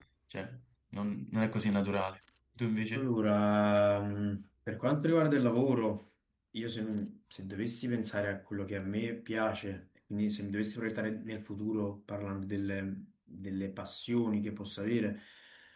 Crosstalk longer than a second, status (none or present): none